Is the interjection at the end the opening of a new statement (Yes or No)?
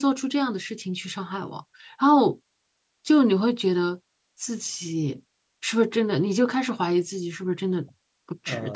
Yes